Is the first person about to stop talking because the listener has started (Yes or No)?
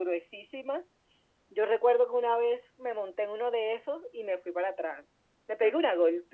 No